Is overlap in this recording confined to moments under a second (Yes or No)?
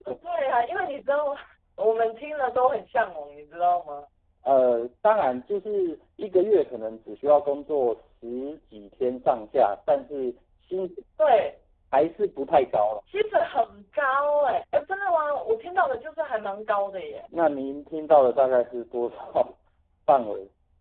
Yes